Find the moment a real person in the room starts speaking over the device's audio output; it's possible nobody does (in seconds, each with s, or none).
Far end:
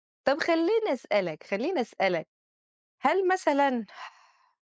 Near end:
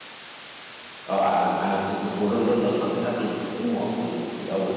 1.1 s